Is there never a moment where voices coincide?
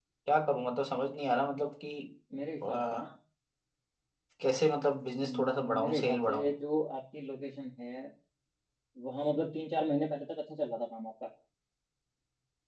No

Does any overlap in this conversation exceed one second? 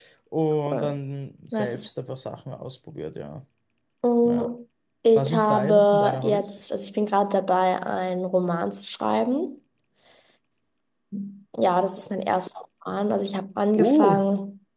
Yes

